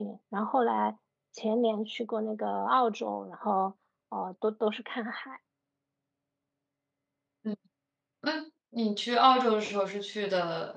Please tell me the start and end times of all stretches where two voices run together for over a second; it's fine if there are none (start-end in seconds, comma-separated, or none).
none